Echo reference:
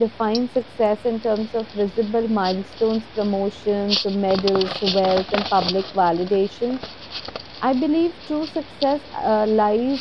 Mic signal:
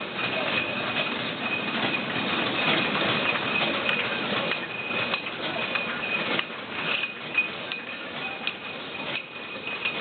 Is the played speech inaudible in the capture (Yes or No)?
Yes